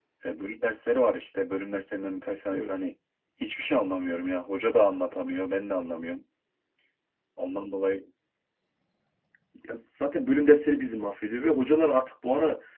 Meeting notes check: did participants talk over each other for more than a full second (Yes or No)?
No